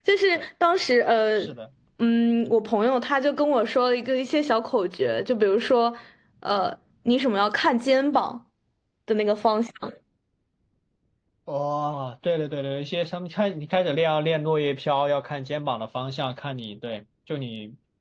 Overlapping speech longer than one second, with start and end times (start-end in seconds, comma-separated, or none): none